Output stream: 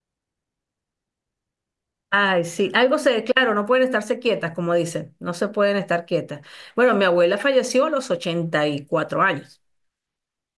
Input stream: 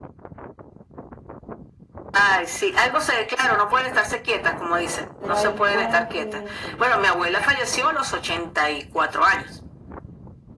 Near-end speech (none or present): present